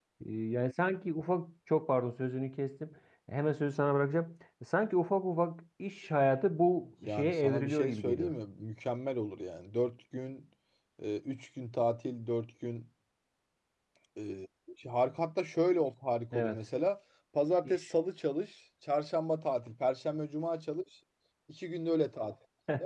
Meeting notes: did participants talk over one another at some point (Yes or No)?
Yes